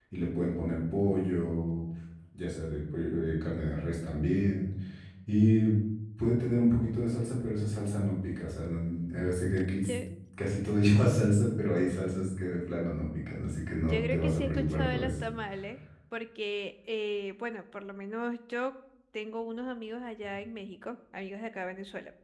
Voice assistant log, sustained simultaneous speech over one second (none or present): present